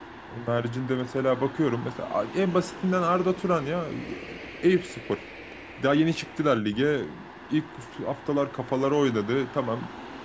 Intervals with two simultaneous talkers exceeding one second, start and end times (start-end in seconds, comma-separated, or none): none